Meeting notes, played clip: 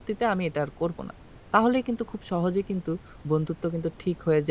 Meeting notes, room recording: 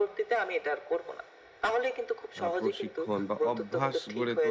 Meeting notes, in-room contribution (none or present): present